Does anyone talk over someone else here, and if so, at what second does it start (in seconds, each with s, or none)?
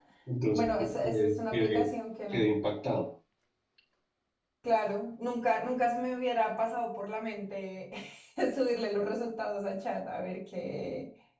0.6 s